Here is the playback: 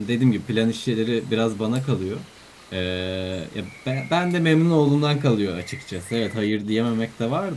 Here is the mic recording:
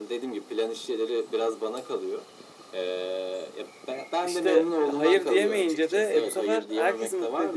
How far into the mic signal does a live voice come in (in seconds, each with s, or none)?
4.2 s